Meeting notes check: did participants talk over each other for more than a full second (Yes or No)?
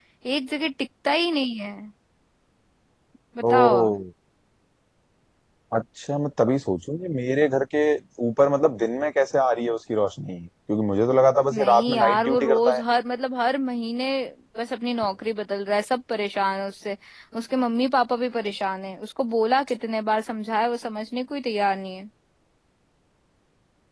Yes